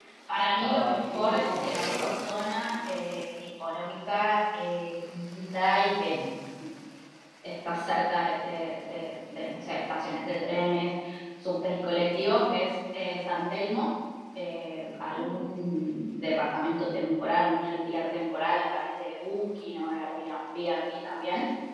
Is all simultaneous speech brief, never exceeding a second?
No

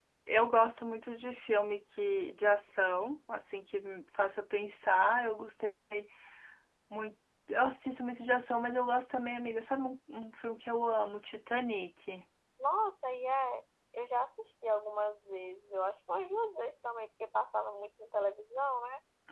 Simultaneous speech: No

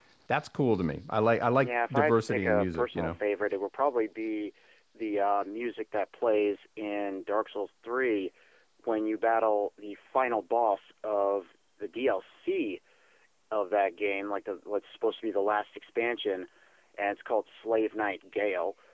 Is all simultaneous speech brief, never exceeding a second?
No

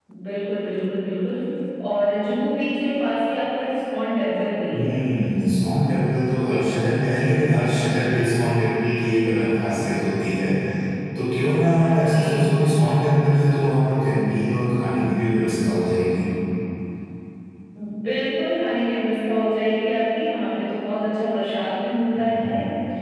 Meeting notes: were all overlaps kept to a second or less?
Yes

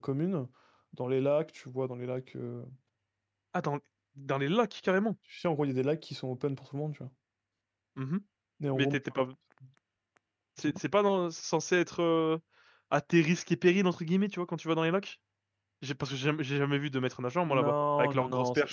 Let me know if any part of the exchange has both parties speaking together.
Yes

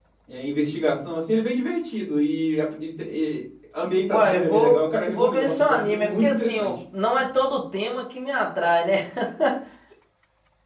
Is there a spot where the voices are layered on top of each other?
Yes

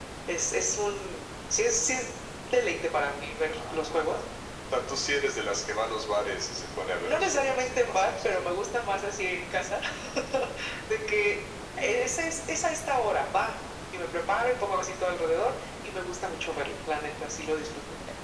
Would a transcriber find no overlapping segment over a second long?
No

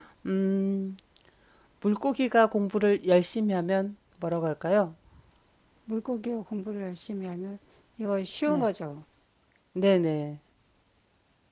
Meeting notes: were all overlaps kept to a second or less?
Yes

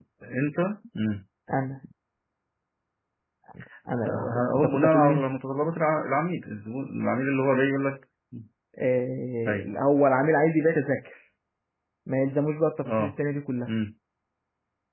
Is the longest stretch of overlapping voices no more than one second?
No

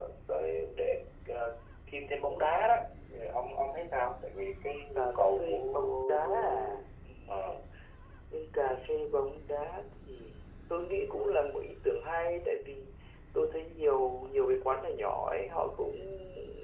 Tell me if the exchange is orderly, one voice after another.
No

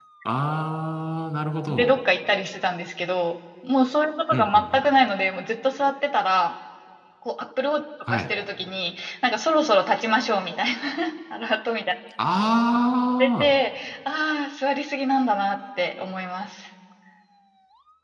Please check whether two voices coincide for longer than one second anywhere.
No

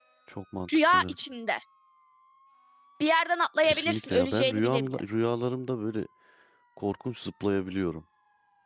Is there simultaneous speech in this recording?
Yes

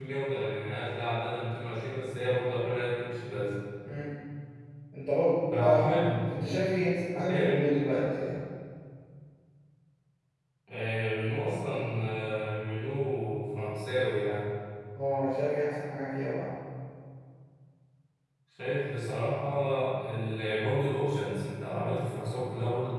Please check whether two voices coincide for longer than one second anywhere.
No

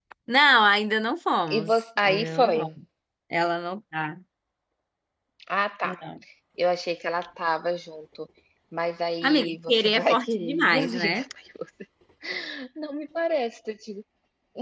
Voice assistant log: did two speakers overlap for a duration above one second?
Yes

